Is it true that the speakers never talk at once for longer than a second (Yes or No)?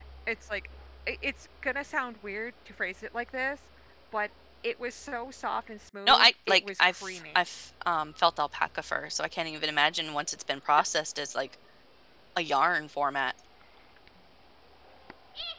No